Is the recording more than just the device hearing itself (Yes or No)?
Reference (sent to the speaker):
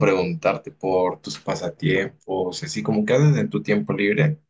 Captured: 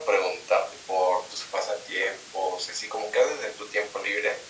No